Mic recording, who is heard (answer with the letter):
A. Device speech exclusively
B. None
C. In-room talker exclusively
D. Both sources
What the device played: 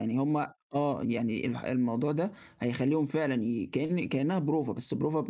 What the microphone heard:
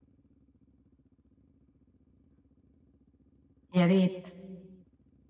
C